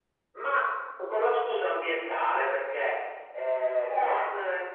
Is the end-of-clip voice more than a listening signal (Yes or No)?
No